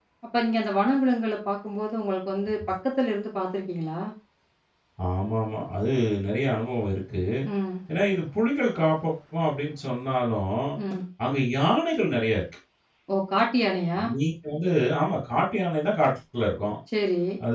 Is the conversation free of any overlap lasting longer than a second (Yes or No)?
Yes